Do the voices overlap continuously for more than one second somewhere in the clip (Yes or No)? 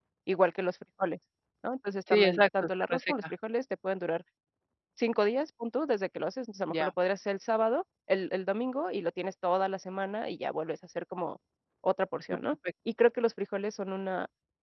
Yes